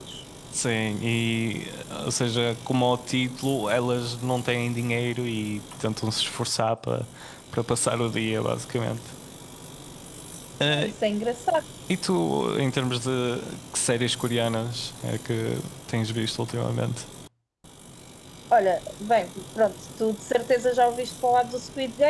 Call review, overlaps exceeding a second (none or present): none